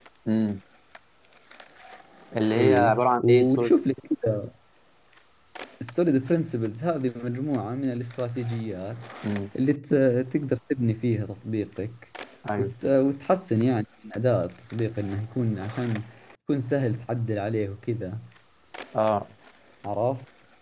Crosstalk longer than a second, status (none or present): present